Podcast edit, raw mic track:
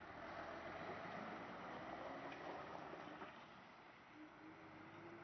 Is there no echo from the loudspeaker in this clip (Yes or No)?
Yes